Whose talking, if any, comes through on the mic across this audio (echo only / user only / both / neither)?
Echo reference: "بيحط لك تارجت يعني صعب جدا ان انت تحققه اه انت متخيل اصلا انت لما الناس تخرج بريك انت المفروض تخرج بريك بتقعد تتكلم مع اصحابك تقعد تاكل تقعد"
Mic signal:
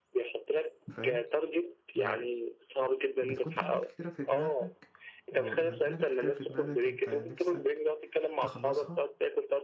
both